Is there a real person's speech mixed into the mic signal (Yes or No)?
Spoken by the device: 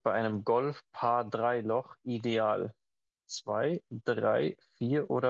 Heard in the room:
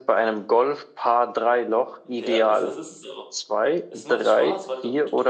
Yes